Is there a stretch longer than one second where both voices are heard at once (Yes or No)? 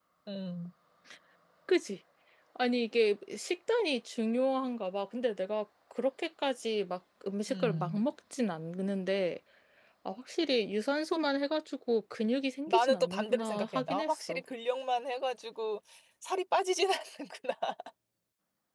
Yes